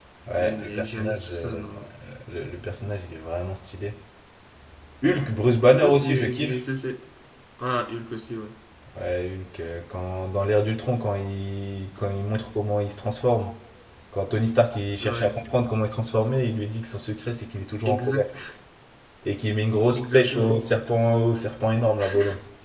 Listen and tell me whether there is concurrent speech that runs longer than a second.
Yes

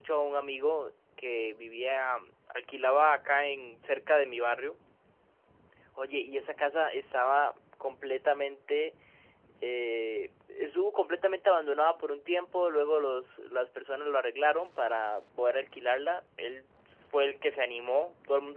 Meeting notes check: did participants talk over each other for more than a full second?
No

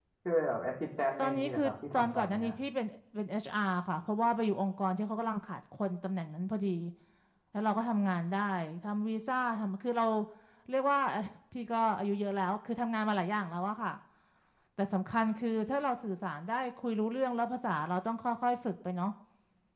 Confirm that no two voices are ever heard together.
No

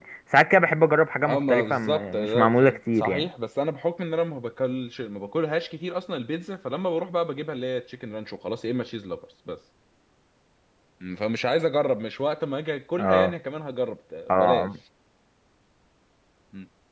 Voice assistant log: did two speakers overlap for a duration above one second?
Yes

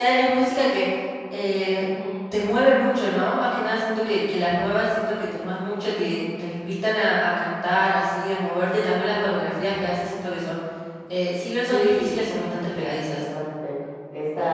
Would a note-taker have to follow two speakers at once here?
Yes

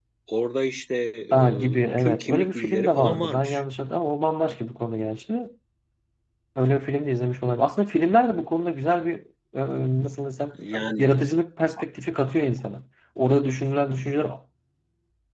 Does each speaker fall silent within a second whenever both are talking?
No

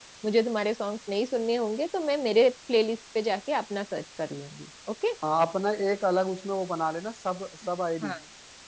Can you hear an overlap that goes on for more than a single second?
No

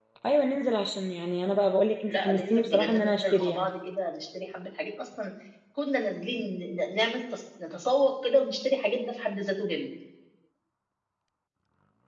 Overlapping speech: Yes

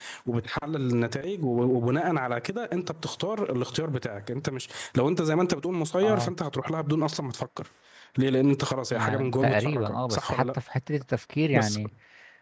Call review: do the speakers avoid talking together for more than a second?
No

